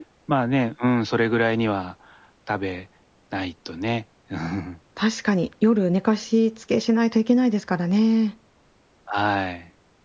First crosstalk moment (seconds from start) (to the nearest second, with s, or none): none